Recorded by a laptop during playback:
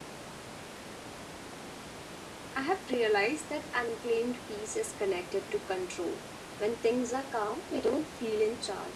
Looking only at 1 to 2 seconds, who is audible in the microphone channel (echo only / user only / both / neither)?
neither